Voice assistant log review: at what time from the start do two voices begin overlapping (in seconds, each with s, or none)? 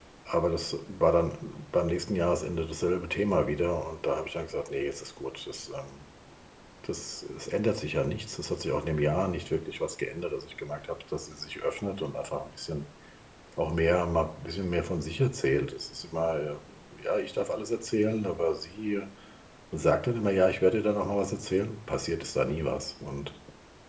none